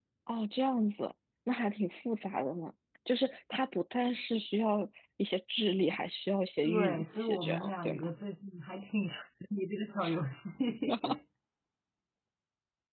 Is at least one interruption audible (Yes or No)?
Yes